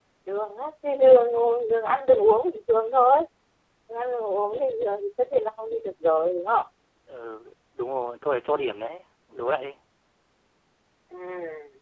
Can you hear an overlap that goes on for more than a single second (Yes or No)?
No